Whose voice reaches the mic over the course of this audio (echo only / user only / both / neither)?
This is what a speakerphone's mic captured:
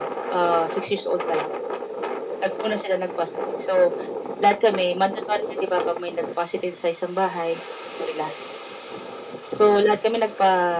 echo only